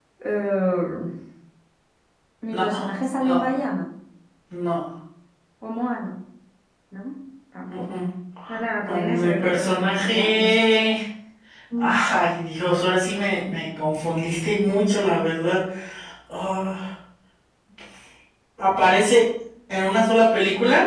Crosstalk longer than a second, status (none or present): present